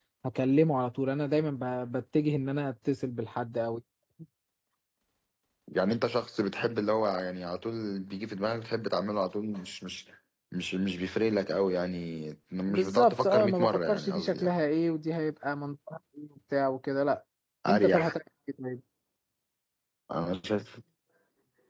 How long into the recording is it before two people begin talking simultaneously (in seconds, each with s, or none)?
12.7 s